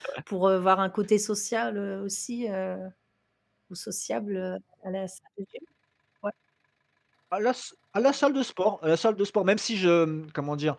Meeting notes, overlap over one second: none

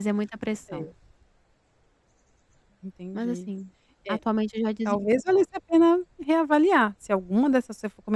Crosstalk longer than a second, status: none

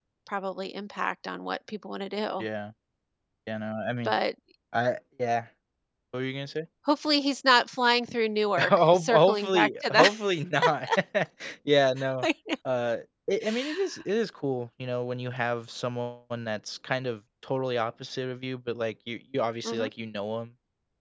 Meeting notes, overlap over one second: present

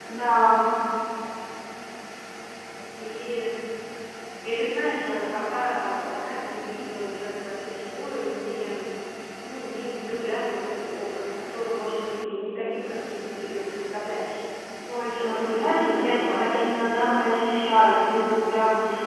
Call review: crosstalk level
present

